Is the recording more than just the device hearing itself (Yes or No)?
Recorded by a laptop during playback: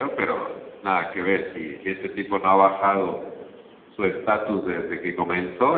No